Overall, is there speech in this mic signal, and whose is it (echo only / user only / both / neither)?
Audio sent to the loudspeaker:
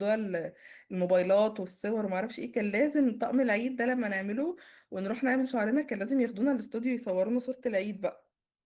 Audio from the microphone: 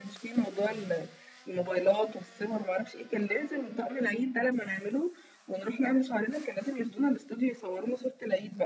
echo only